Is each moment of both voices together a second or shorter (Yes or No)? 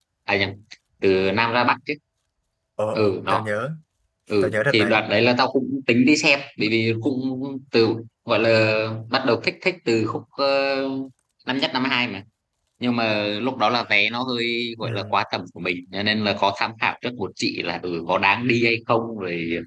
Yes